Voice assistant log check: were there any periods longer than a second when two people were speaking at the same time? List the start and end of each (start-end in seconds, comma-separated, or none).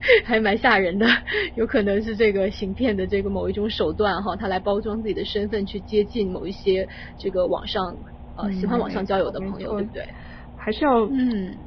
8.4-9.8